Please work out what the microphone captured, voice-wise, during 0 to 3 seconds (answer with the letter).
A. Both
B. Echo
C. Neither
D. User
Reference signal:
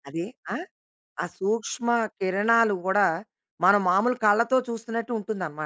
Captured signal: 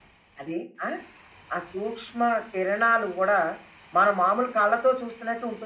B